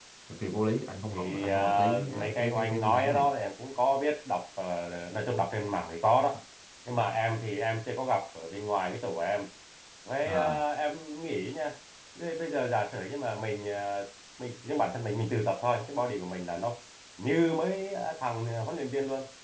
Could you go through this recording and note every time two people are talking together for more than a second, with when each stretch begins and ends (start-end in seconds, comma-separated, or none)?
1.1-3.2